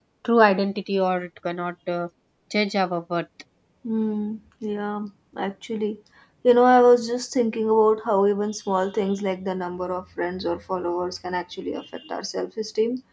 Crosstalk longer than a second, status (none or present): none